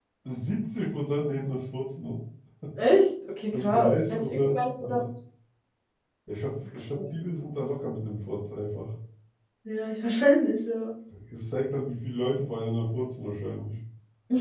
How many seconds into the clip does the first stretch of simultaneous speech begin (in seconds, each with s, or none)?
3.5 s